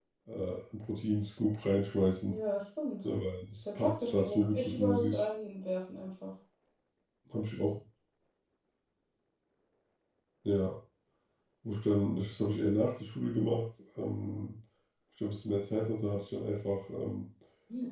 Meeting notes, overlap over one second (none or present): present